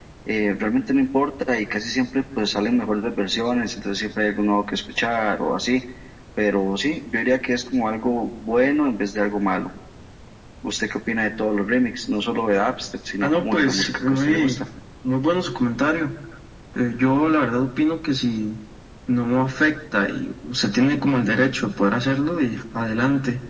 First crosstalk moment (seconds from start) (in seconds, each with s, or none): 13.2 s